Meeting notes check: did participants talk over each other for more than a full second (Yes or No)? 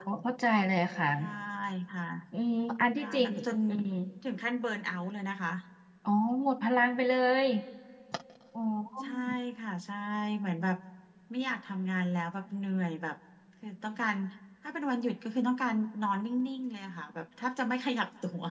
No